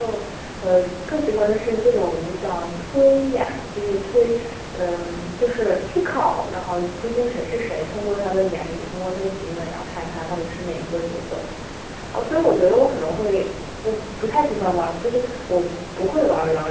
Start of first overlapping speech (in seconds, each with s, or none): none